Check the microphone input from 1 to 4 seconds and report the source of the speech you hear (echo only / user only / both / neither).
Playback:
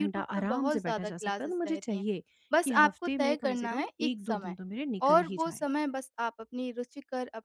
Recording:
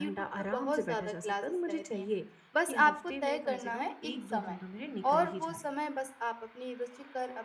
echo only